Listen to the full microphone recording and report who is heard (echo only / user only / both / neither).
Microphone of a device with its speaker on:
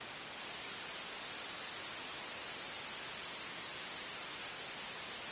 neither